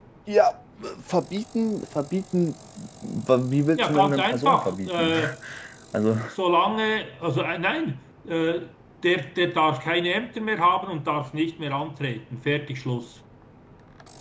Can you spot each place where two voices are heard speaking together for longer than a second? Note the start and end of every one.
3.8-5.1

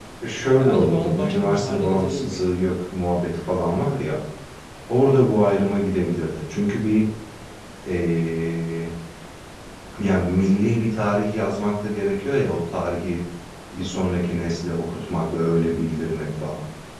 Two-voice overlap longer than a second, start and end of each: 0.5-2.5

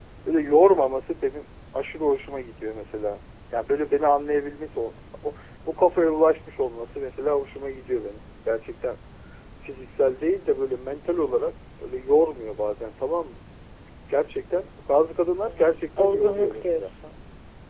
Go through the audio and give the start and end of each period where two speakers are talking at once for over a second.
15.4-16.9

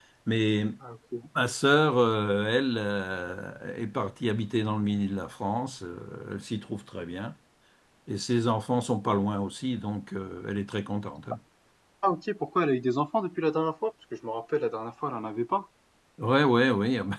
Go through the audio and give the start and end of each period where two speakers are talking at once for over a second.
none

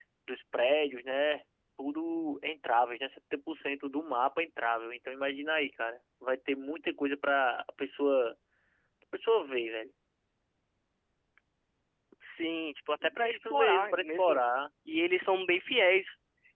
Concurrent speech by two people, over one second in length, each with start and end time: 13.0-14.4

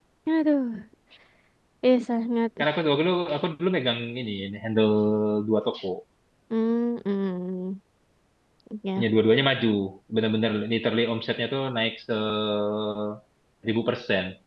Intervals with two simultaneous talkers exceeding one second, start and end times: none

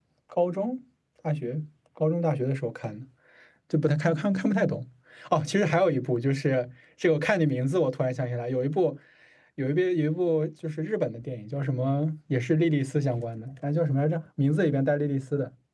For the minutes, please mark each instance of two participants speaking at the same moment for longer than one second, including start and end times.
none

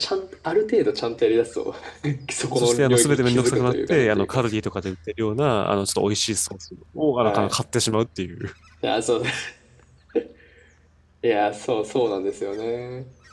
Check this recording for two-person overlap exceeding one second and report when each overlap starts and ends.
2.5-4.4

